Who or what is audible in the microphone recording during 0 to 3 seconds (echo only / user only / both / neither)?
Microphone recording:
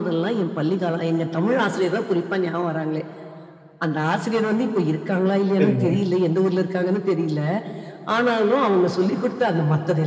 echo only